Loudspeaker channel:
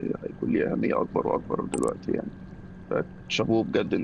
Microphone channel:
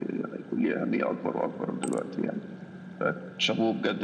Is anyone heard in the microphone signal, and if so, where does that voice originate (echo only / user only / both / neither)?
echo only